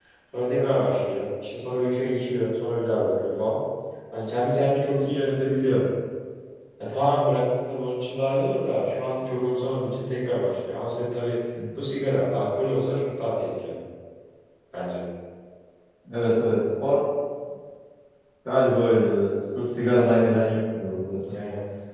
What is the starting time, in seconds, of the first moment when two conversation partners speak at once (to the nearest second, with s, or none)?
none